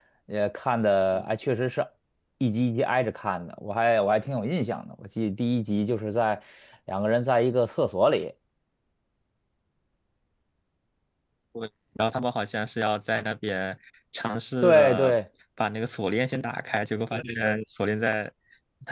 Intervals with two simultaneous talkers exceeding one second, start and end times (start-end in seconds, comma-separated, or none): none